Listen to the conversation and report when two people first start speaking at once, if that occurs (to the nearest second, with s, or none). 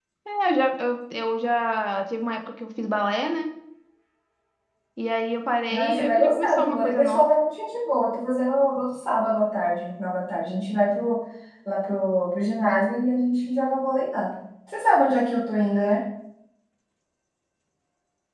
6 s